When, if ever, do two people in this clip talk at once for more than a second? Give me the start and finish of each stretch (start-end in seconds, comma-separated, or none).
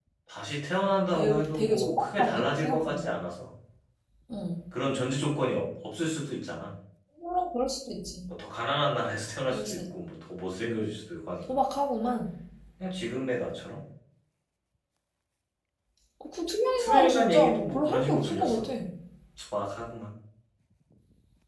1.1-3.0, 16.8-18.6